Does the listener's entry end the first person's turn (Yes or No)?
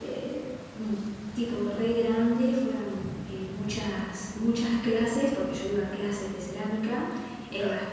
No